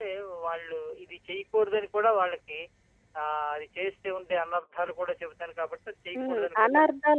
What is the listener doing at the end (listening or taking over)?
taking over